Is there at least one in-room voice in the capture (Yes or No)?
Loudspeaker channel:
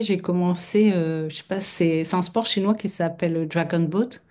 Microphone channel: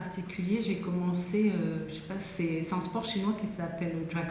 No